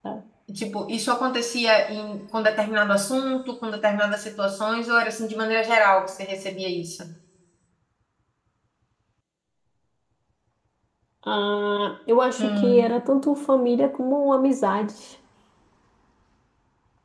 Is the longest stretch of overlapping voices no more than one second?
Yes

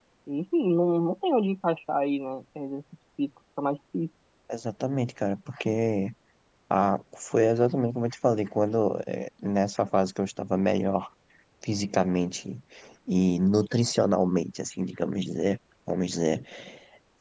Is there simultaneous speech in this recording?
No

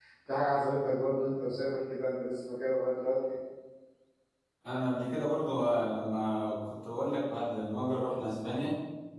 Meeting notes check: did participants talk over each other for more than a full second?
No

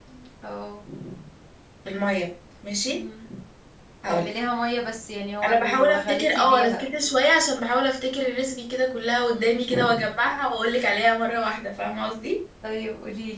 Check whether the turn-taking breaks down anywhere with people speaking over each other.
Yes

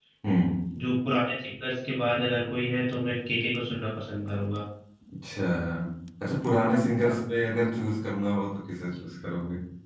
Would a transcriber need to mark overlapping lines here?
No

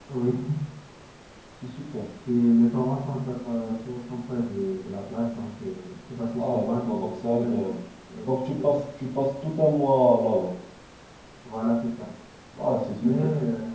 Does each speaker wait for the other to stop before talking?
No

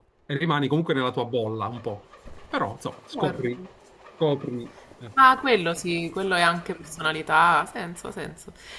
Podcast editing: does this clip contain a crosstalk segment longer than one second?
No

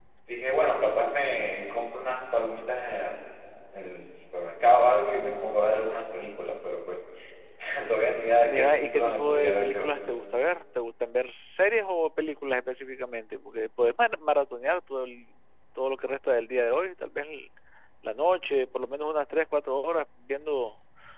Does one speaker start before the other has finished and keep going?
Yes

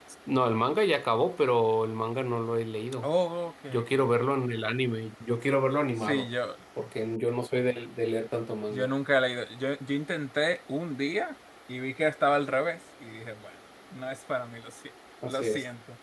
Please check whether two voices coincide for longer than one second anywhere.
No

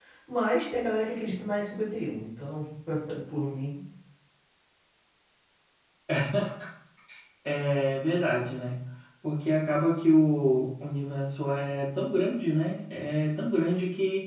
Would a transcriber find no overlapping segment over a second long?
Yes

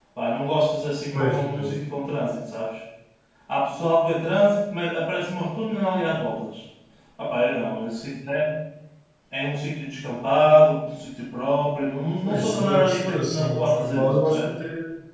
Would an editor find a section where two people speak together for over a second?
Yes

